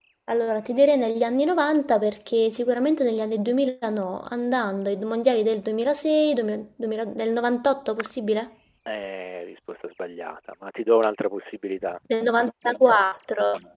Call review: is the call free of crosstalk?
Yes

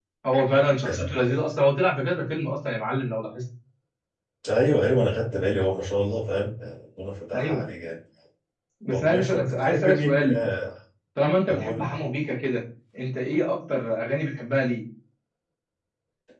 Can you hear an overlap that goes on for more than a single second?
Yes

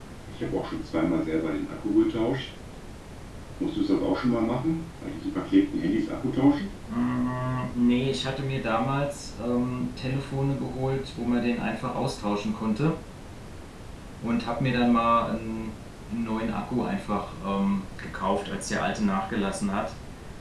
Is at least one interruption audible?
No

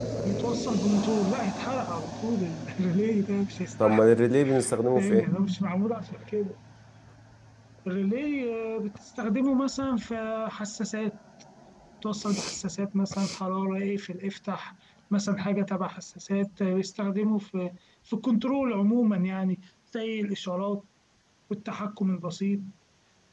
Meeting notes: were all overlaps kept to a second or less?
Yes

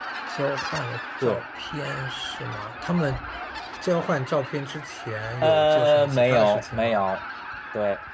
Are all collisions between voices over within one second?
No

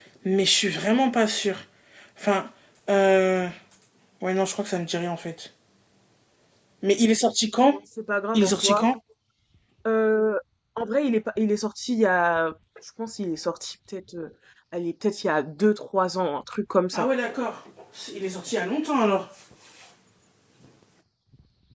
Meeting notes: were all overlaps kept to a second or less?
Yes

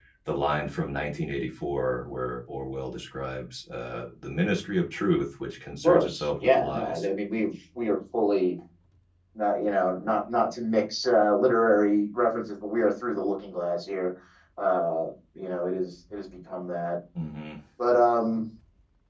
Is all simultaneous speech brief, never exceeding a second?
No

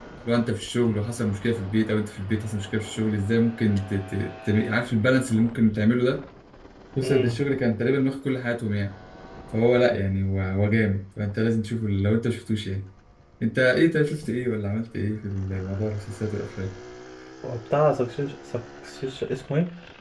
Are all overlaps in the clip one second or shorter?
Yes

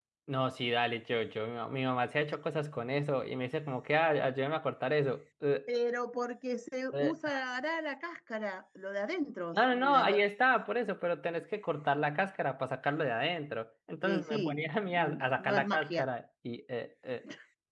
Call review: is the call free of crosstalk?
No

